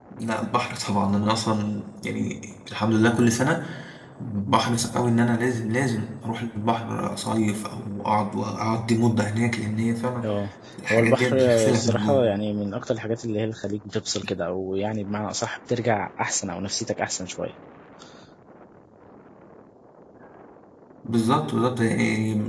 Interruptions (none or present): present